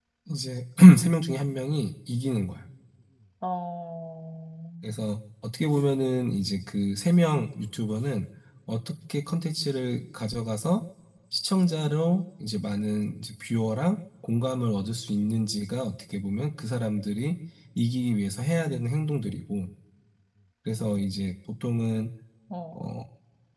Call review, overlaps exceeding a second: none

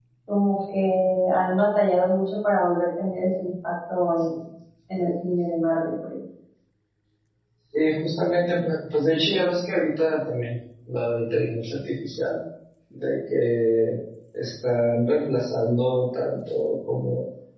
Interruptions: none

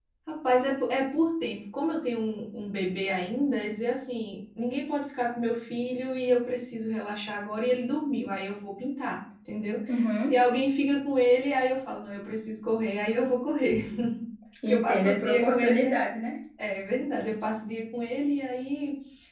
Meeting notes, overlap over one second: present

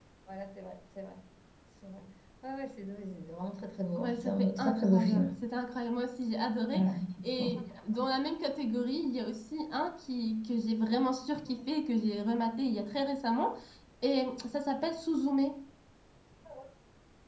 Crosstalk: present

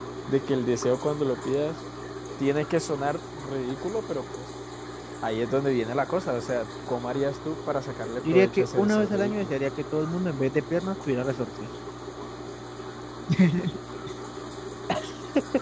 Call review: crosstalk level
present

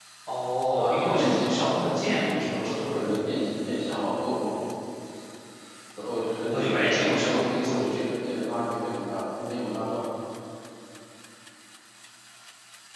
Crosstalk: present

